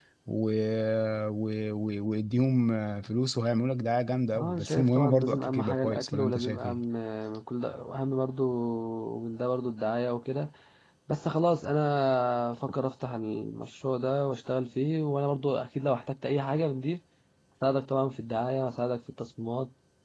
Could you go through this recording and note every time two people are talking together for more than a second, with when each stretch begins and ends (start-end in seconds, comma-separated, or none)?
4.4-6.8